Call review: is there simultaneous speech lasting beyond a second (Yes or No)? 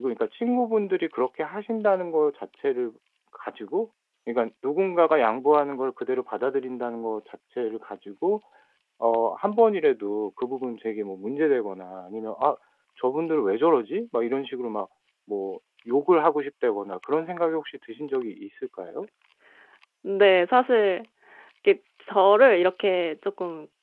No